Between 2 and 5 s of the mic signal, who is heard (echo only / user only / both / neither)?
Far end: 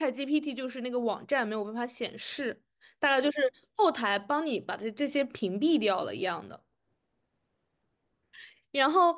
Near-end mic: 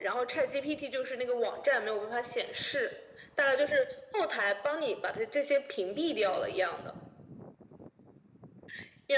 echo only